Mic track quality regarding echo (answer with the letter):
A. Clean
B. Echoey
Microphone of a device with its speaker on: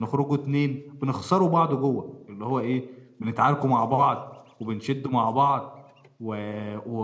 A